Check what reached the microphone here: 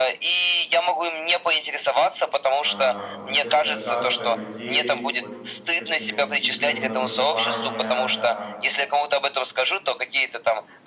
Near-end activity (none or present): present